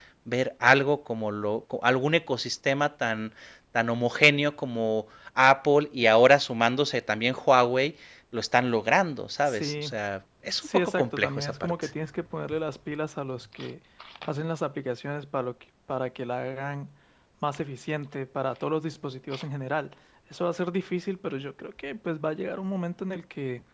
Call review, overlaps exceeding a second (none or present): present